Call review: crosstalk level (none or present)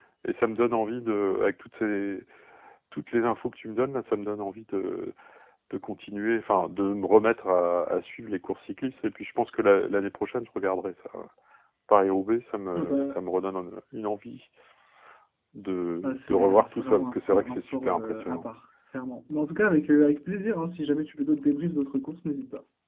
present